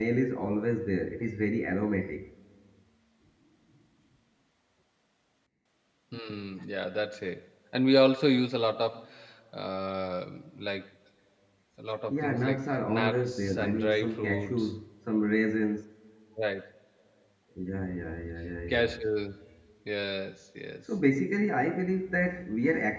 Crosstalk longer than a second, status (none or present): present